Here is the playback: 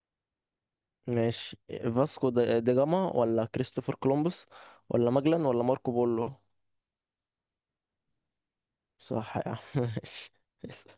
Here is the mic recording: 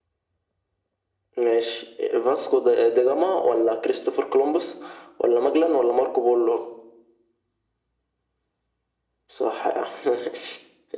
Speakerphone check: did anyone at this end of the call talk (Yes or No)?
No